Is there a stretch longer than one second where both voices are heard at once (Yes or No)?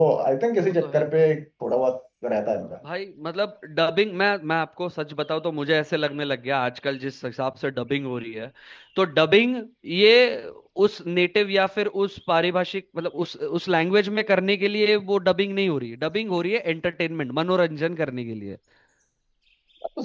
No